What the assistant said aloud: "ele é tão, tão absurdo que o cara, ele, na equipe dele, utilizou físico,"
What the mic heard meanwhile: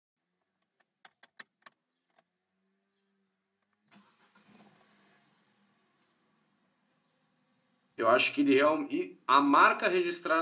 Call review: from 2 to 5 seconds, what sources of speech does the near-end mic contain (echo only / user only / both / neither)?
neither